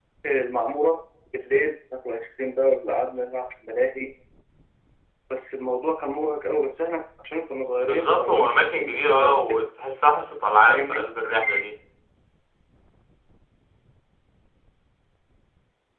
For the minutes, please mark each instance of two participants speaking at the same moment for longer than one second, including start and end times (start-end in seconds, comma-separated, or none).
7.8-9.6